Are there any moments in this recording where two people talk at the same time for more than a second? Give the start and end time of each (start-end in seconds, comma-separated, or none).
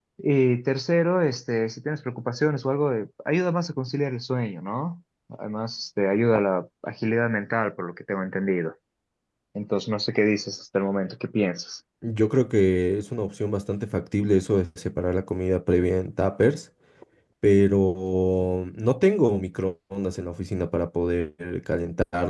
none